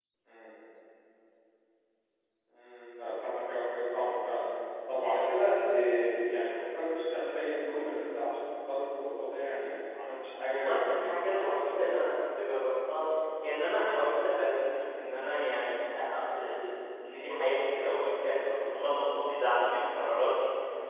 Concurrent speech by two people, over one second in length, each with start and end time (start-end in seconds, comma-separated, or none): 10.5-12.2